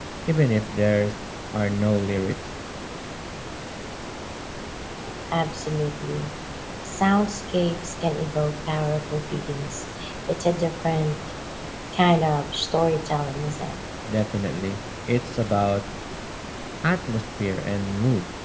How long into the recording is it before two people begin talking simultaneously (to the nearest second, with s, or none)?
none